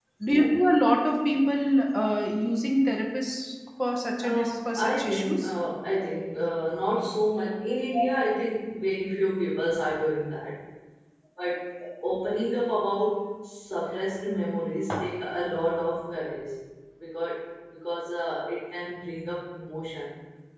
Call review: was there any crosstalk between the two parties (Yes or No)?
Yes